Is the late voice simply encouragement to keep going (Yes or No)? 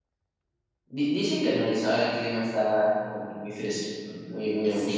No